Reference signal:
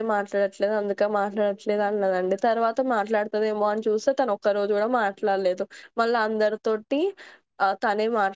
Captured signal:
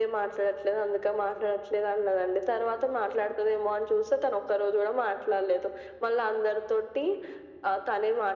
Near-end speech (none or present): none